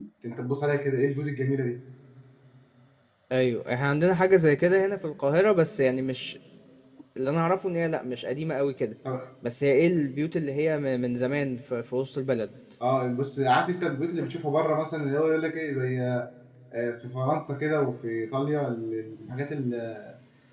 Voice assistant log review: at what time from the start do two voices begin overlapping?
none

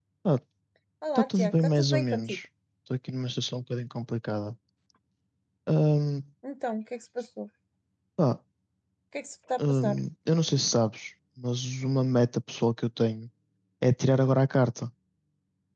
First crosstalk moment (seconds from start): 1 s

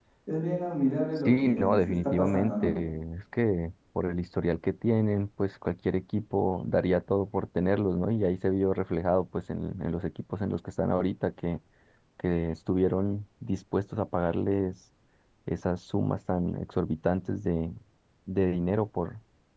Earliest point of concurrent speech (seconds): 1 s

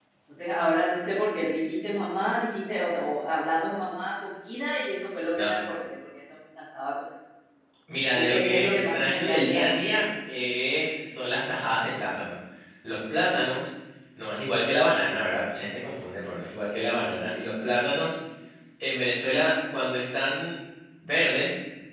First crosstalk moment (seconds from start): 8 s

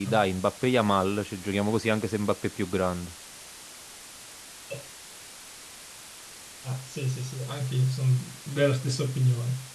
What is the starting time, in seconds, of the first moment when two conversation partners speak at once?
none

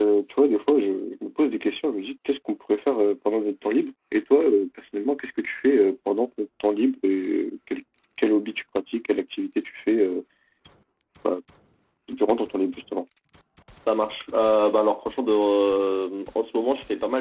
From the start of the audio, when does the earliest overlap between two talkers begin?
none

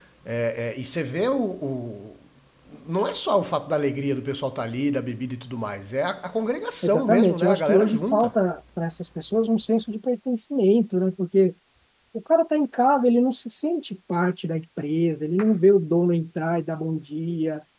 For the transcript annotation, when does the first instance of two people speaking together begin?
7 s

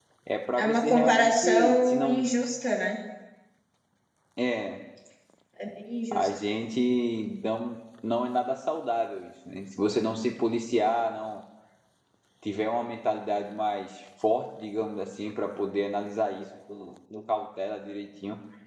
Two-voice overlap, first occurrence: 1 s

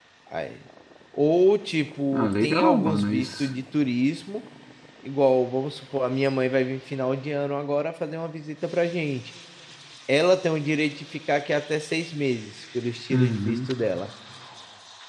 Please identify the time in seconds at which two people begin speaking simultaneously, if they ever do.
2 s

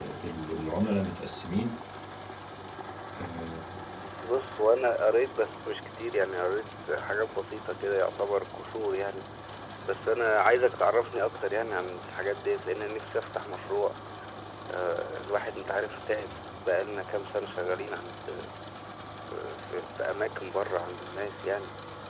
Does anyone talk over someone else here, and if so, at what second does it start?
none

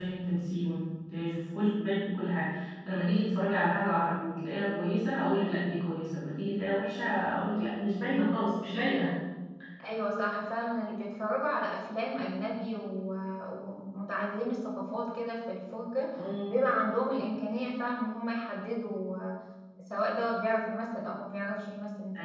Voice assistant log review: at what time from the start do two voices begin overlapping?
none

